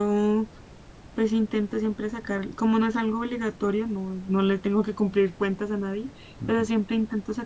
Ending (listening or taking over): listening